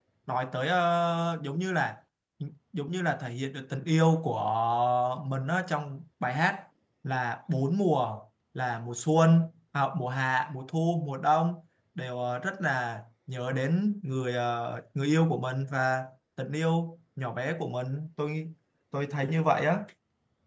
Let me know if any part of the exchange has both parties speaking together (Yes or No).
No